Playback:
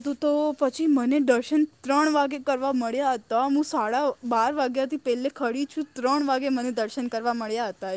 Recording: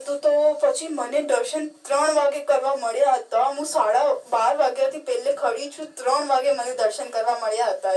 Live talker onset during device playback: none

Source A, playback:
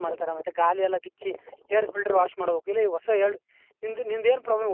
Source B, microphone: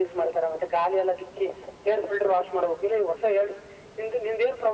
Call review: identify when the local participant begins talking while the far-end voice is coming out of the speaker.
none

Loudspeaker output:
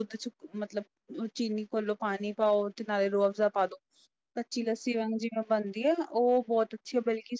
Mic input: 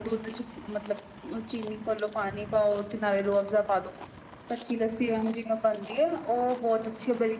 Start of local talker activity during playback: none

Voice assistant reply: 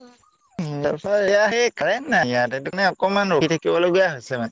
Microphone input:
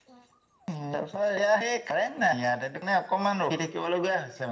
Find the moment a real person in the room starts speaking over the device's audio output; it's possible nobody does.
none

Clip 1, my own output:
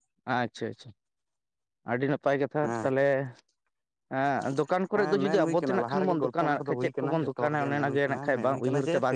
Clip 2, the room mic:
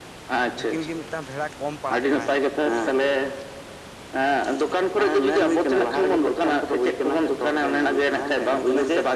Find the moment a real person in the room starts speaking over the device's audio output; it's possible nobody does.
1 s

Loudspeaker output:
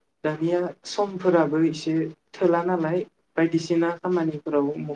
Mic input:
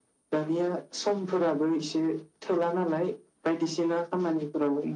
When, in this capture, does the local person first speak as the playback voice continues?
none

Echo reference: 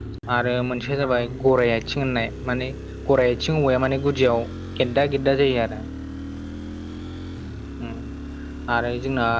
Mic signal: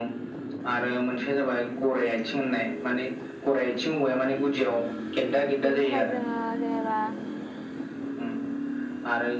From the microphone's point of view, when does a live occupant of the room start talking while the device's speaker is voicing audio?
6 s

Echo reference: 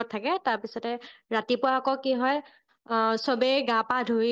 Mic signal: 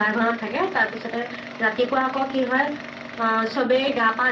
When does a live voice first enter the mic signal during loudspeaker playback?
none

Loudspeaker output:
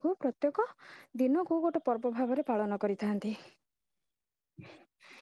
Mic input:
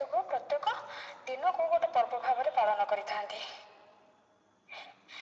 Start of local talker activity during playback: none

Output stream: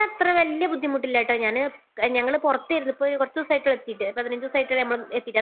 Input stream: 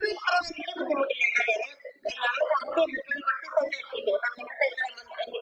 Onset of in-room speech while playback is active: none

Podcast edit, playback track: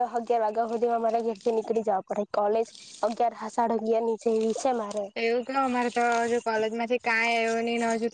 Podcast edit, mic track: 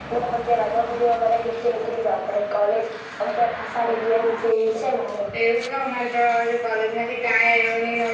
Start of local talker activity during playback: none

